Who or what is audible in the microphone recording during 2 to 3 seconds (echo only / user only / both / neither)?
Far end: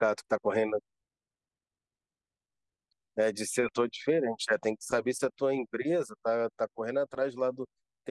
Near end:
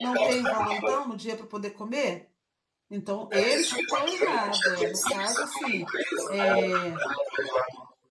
user only